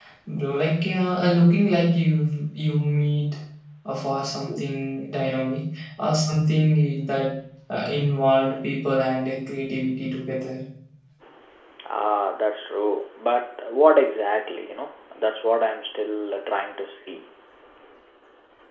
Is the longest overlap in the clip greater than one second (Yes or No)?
No